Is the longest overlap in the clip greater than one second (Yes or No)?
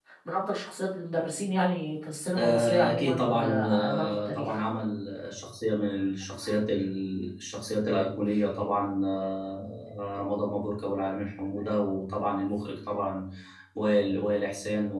Yes